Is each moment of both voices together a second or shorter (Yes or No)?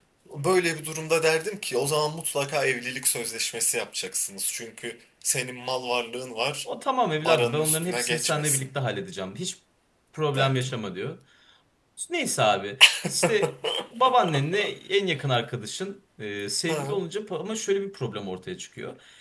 No